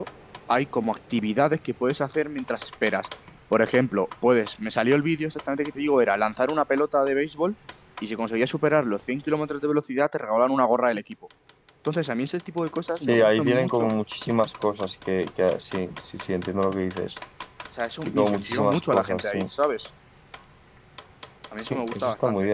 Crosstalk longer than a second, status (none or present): present